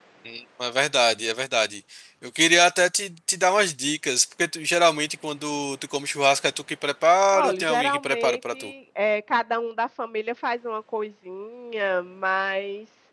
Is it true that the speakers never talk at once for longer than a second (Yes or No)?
No